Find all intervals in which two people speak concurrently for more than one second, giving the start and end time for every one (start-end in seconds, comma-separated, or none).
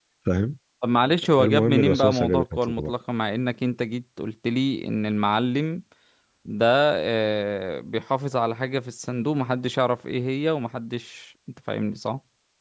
1.4-2.9